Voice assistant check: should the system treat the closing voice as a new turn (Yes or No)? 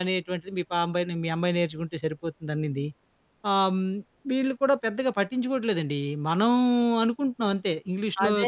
Yes